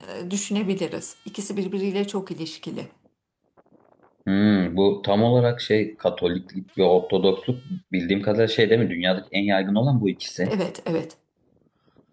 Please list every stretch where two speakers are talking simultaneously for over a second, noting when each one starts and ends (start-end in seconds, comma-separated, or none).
none